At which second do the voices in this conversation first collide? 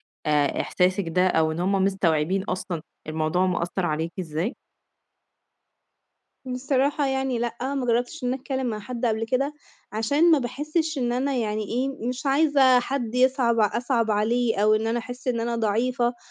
none

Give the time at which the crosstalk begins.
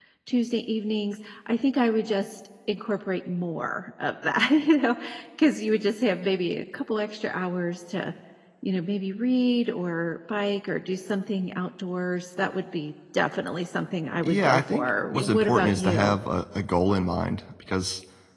14 s

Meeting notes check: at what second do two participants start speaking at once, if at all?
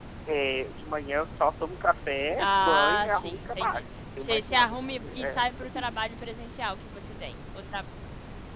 2 s

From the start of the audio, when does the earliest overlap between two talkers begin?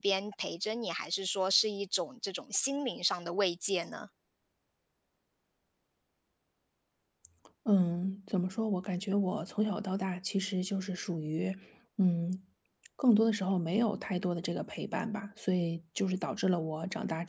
none

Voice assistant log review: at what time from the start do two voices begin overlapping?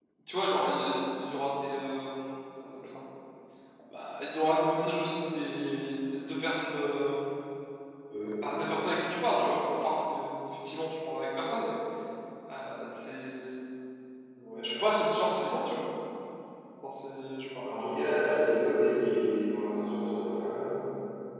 none

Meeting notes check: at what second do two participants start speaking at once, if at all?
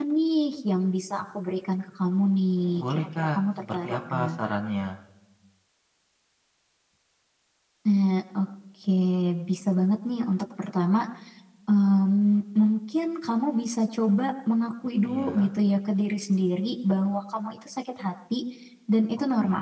3 s

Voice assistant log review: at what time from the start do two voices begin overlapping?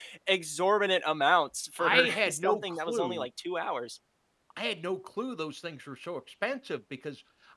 2 s

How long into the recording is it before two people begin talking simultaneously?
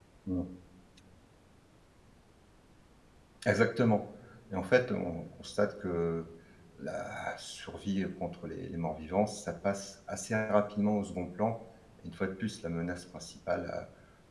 none

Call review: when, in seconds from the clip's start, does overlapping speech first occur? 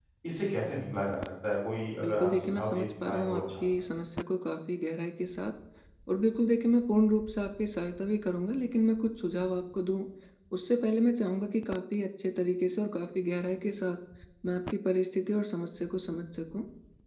2 s

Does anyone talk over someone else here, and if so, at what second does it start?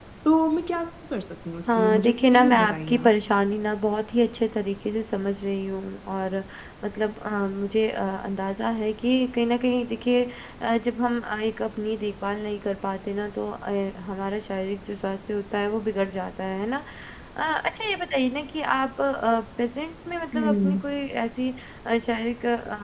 2 s

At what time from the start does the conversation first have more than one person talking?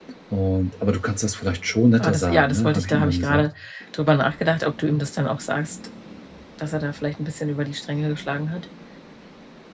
2 s

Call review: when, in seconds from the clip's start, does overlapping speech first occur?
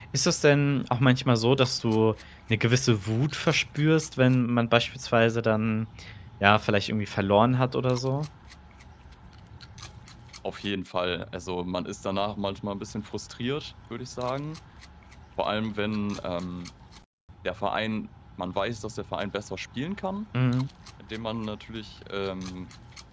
none

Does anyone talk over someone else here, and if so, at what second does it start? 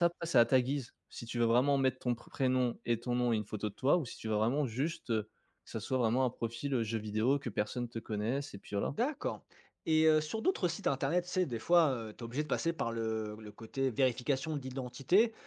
none

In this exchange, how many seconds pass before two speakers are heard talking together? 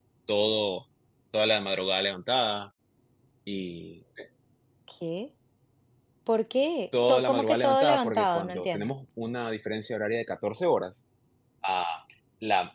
7 s

